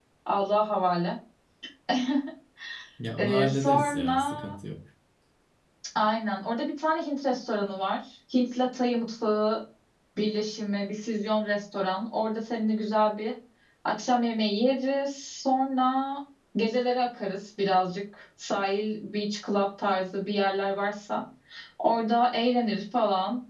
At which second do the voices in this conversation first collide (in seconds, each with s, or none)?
3.2 s